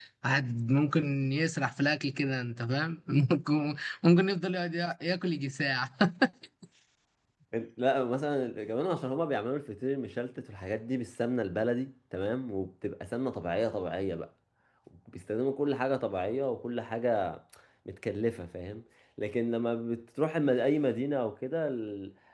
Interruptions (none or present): none